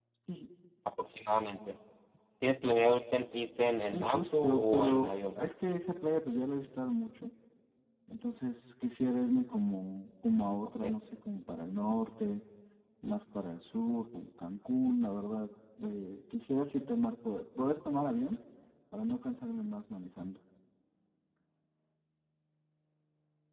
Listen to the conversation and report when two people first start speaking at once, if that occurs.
3.9 s

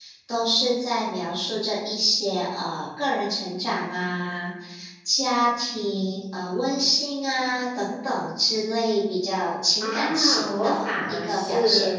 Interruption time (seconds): 9.8 s

